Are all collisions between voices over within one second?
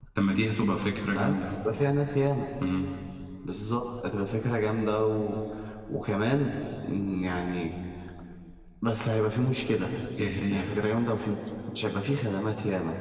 Yes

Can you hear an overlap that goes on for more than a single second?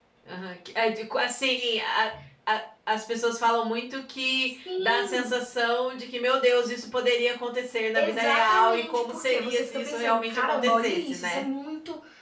Yes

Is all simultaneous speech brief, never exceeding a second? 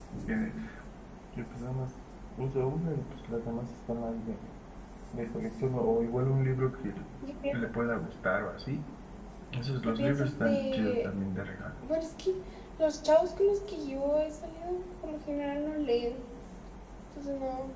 No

